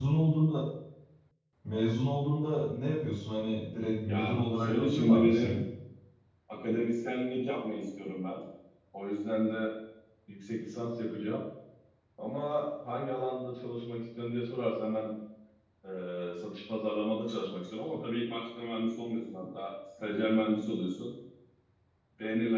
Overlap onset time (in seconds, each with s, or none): 4.1 s